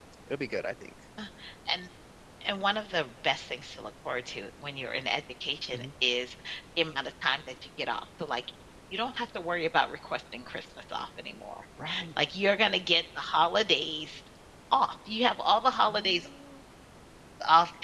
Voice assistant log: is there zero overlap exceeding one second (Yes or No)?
Yes